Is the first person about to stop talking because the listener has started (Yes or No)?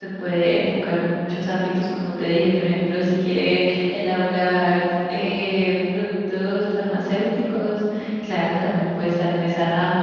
No